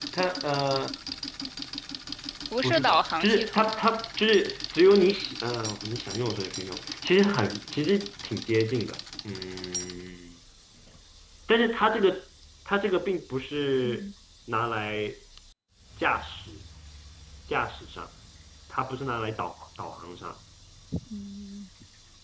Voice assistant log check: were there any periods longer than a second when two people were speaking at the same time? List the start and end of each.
2.6-3.8

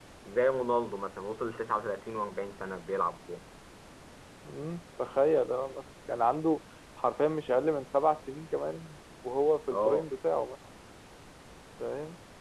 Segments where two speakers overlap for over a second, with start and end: none

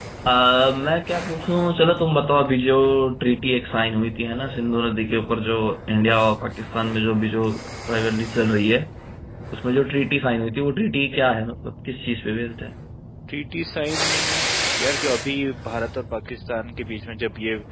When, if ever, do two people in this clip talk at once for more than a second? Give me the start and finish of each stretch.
none

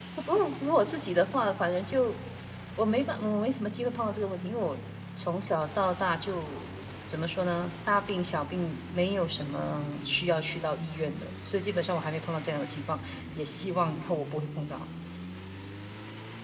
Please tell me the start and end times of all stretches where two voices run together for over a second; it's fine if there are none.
none

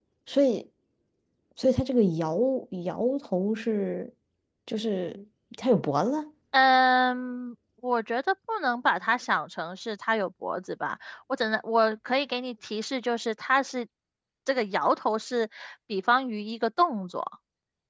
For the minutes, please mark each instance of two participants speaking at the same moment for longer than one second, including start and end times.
none

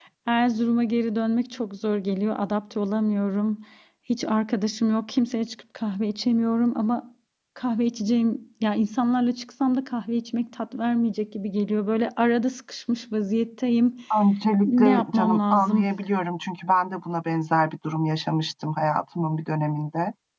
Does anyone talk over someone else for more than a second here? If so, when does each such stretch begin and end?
14.6-15.9

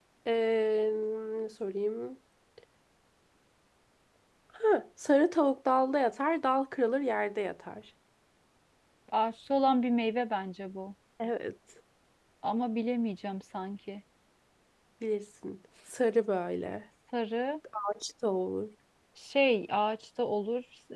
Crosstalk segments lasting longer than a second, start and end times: none

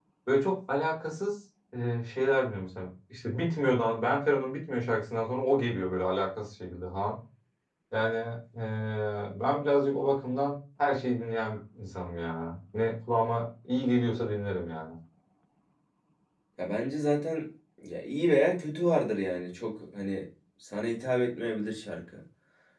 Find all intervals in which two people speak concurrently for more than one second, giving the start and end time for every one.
none

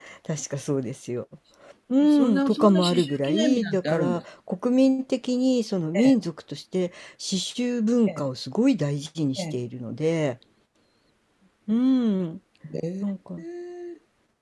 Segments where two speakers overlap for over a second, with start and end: 2.0-4.2

